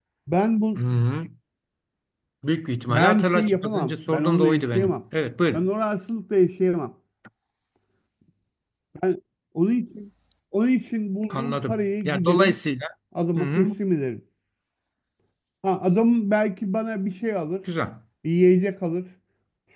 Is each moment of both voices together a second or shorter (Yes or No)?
No